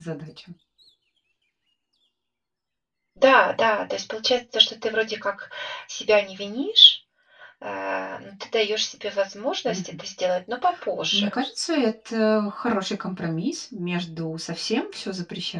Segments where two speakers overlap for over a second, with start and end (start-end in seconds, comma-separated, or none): none